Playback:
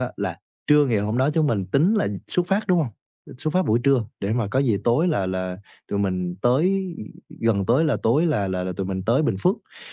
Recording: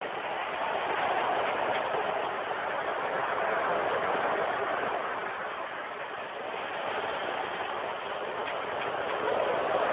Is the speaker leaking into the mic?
No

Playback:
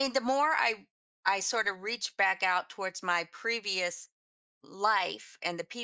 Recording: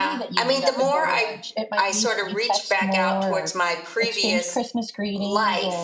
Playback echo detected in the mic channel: Yes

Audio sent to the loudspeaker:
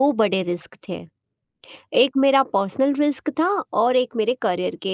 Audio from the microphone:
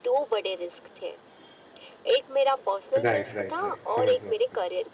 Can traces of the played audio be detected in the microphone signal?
Yes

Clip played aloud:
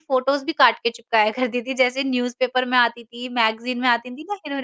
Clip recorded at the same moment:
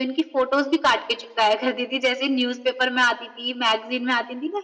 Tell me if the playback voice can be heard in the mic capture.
Yes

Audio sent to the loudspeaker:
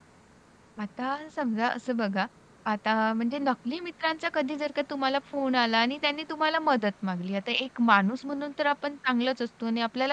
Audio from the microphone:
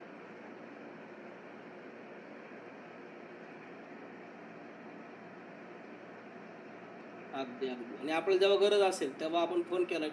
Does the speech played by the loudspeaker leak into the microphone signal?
No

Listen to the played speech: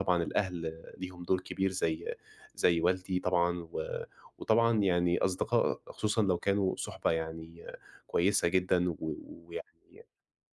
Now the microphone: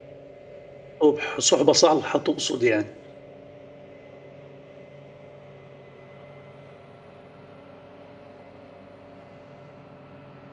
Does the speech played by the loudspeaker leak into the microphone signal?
No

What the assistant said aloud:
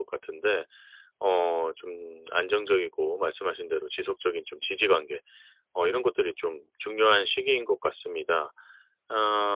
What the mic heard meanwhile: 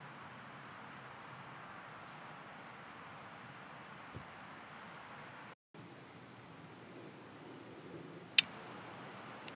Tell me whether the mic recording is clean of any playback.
Yes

